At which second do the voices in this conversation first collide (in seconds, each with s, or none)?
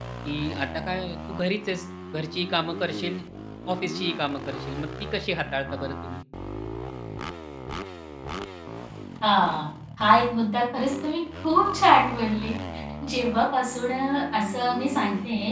none